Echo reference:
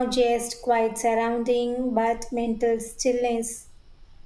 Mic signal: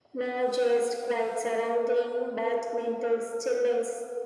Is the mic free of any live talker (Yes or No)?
Yes